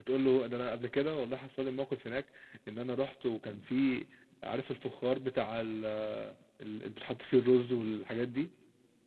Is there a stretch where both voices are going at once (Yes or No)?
No